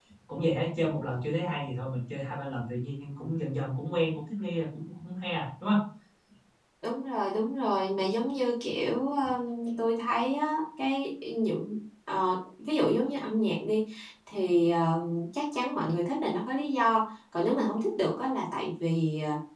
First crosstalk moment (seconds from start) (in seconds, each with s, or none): none